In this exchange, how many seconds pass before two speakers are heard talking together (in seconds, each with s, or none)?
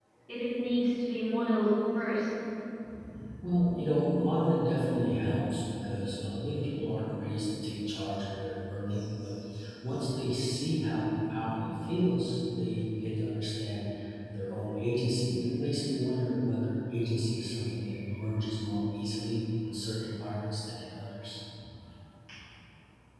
none